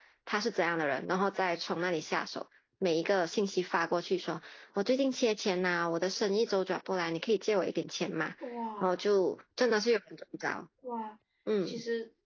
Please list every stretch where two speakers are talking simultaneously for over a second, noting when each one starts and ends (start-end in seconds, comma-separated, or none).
none